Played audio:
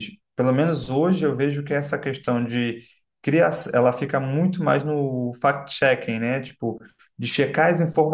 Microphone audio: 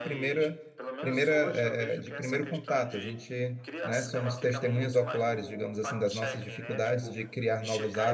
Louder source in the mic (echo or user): user